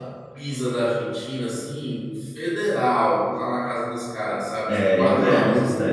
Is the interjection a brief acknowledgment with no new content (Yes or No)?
No